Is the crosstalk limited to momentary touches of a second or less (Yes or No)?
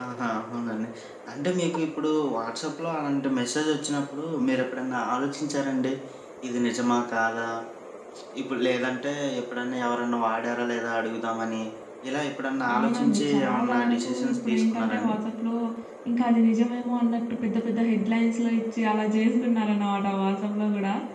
No